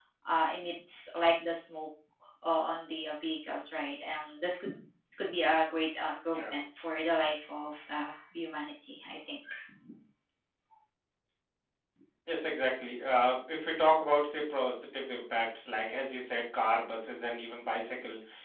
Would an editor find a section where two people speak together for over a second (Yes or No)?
No